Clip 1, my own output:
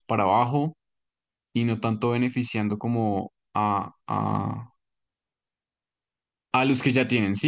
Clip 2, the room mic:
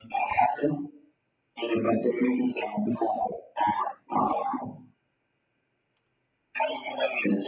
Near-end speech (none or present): none